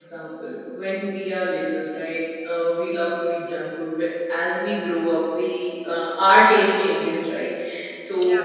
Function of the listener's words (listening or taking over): listening